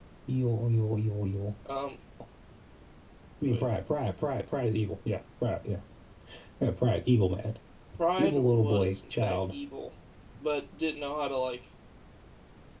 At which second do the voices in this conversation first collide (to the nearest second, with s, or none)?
8 s